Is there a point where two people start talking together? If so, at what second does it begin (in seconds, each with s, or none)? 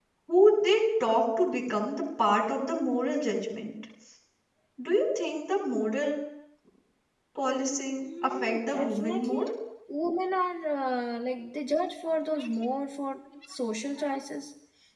8.1 s